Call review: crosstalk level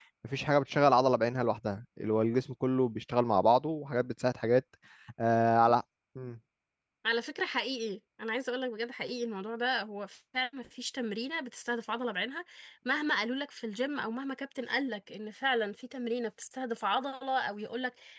none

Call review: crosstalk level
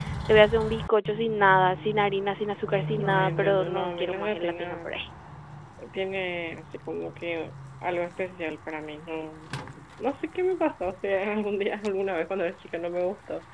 present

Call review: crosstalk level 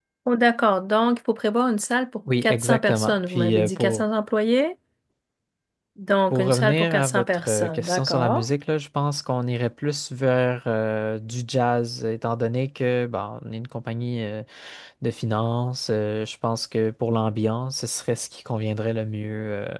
present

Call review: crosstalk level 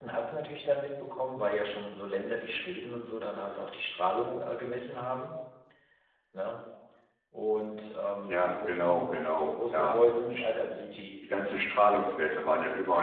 present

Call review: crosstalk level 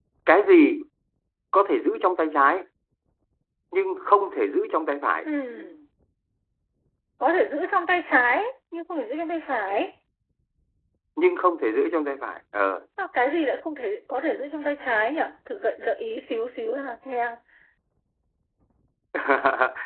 none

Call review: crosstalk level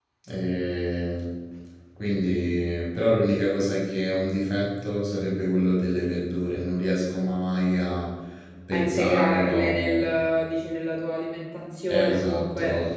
present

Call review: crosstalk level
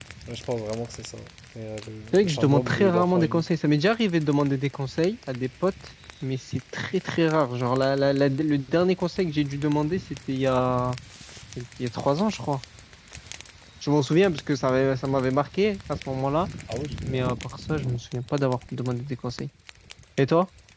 present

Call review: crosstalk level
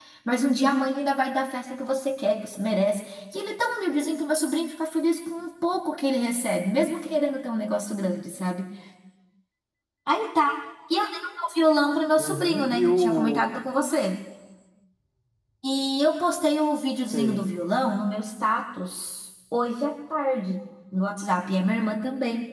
present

